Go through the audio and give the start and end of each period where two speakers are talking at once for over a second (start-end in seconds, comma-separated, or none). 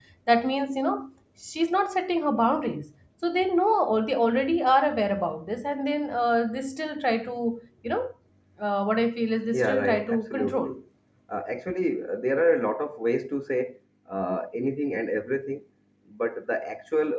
9.5-10.7